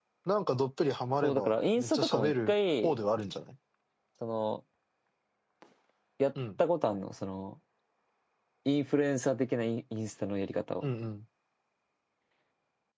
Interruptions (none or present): present